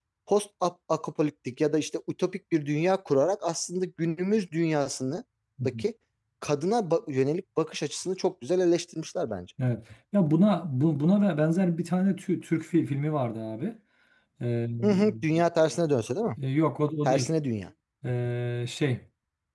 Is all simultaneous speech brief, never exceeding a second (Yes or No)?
Yes